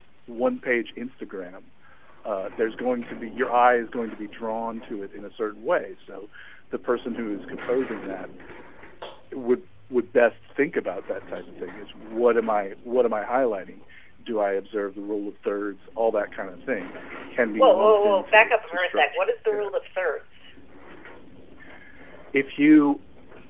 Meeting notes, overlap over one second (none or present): present